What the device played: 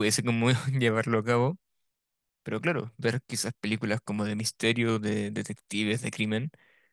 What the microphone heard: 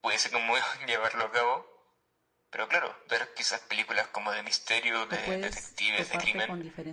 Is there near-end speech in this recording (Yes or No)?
Yes